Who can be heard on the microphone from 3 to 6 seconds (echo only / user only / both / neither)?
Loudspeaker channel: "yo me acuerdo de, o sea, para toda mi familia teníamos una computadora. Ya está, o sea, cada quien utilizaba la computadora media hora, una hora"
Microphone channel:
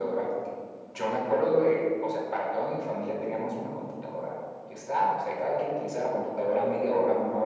echo only